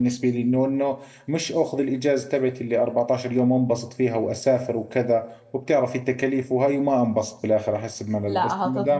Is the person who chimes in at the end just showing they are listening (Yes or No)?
No